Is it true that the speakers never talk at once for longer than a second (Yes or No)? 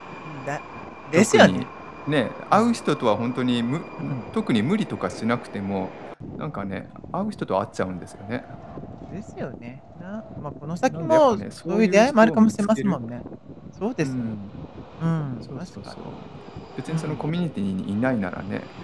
No